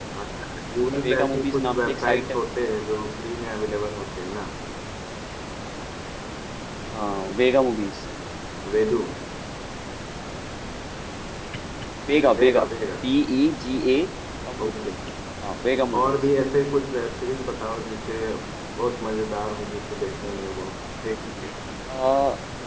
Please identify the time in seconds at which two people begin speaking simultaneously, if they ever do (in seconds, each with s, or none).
1.0 s